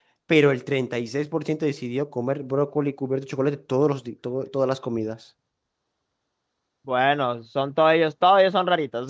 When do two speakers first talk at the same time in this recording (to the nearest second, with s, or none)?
none